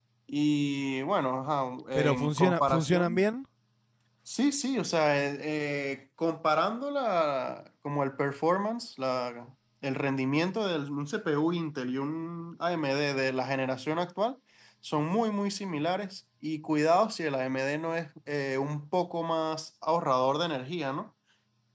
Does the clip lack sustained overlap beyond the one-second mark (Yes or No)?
No